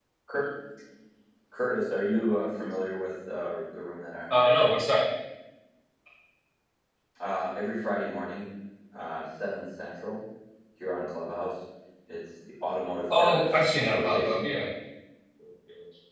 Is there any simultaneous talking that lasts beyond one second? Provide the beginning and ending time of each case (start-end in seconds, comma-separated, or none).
13.2-14.4